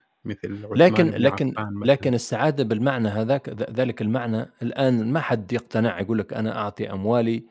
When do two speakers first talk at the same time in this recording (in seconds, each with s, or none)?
0.8 s